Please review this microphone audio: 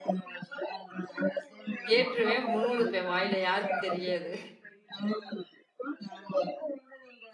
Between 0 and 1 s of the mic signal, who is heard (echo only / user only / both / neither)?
echo only